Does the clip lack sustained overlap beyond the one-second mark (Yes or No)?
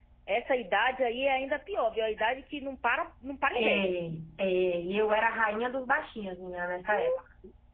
Yes